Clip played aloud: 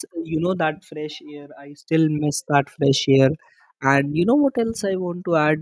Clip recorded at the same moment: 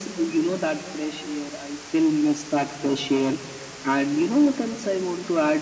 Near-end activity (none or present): none